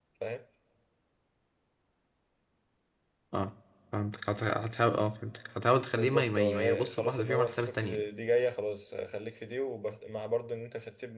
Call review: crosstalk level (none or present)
present